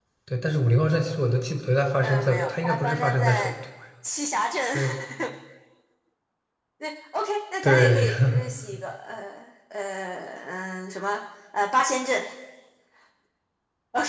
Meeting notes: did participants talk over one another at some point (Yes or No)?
Yes